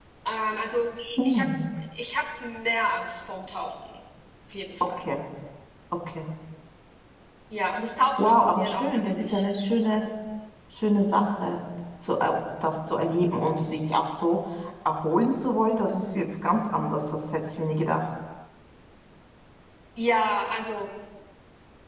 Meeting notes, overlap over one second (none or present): present